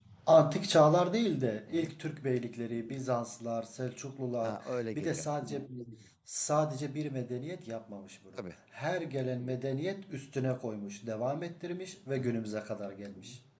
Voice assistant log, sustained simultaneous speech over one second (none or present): none